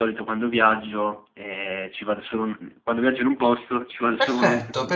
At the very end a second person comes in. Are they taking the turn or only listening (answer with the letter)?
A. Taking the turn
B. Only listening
A